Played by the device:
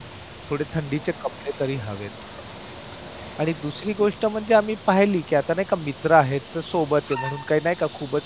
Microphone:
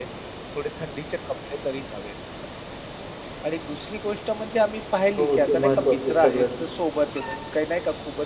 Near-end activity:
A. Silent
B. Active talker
B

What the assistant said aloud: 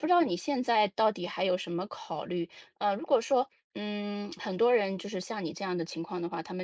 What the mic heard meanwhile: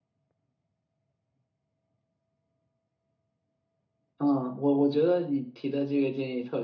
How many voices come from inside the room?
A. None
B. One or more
B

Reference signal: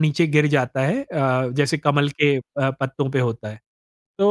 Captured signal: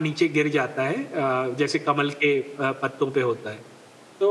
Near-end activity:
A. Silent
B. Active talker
A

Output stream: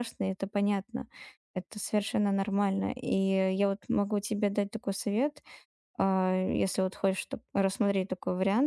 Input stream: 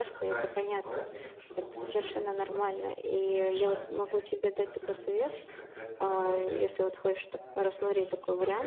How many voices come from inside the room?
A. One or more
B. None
A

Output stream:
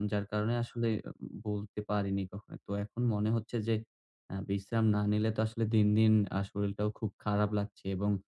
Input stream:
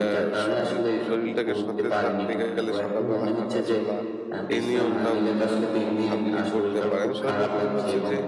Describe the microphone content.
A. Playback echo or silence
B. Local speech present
B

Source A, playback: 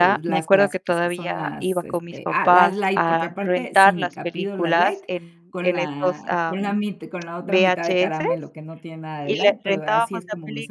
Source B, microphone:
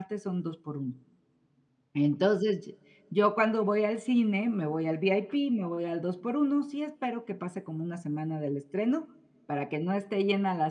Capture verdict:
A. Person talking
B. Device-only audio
A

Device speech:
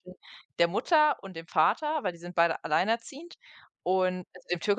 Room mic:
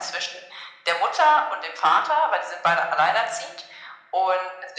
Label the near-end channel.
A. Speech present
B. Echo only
B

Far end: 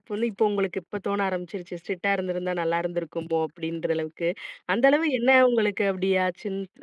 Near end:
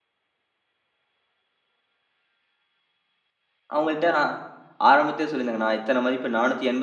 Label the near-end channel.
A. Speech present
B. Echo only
A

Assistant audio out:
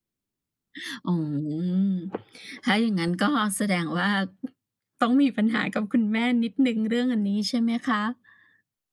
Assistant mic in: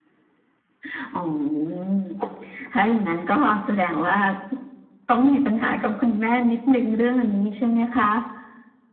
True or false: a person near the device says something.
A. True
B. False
B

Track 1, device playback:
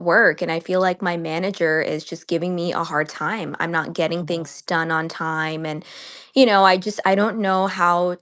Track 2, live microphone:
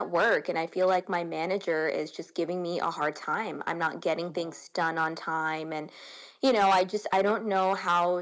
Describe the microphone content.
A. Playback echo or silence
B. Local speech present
A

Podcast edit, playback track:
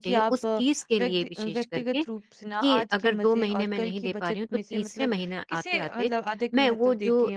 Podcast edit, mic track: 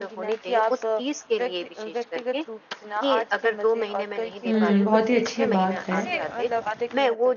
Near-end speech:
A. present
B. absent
A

